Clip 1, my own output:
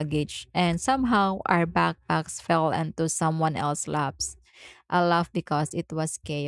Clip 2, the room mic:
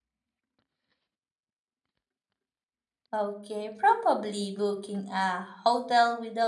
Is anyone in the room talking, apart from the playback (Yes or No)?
Yes